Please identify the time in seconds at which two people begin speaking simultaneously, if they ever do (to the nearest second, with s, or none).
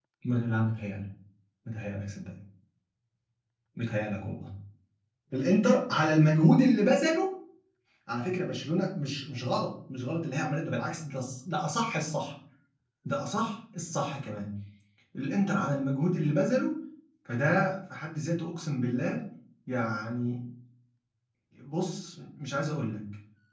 none